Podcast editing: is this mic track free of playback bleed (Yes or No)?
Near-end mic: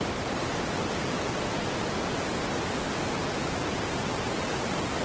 Yes